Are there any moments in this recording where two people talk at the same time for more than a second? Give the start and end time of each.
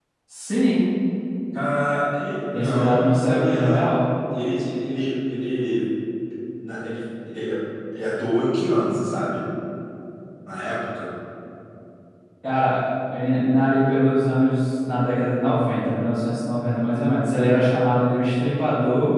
2.5-4.0

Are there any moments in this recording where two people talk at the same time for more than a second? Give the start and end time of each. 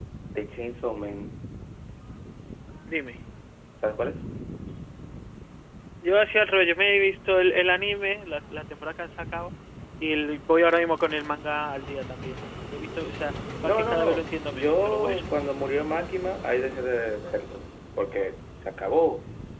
13.6-15.2

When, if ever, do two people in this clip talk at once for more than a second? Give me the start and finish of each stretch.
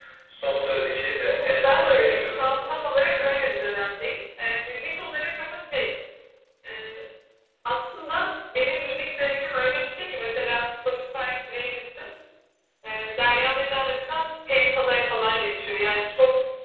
1.3-2.5

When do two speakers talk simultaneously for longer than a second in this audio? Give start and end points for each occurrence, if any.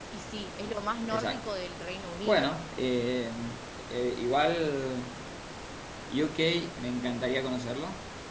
none

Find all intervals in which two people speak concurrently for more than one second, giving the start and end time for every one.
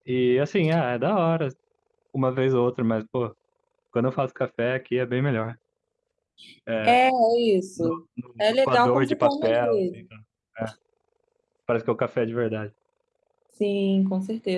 8.4-9.8

